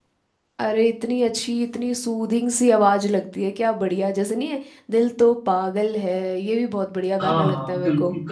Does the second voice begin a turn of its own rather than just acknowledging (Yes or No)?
Yes